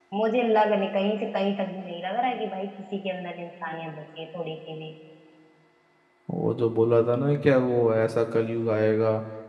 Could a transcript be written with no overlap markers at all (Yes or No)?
Yes